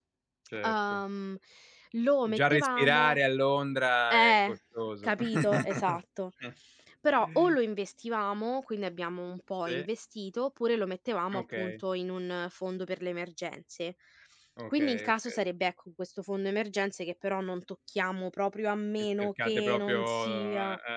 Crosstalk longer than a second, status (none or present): present